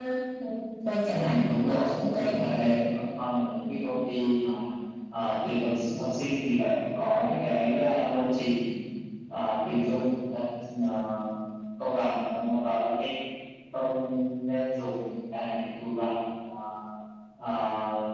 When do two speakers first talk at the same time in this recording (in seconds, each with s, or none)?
1.1 s